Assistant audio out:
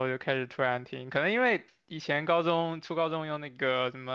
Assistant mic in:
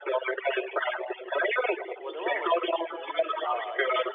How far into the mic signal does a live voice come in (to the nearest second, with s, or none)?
2 s